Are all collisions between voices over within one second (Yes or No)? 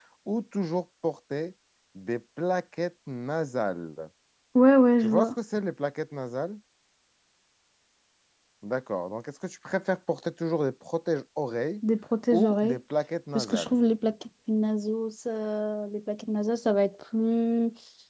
Yes